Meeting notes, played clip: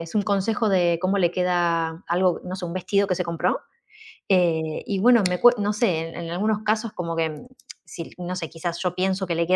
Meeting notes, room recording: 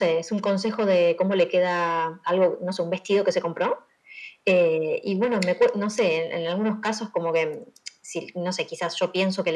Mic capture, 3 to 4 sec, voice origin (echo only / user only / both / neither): echo only